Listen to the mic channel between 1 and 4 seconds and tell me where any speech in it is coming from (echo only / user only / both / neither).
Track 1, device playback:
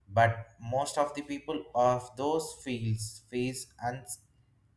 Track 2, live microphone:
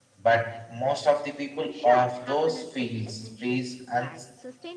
both